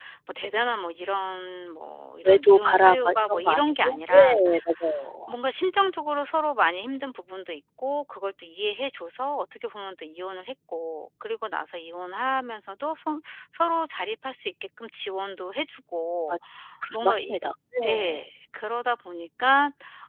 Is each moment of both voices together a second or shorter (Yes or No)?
No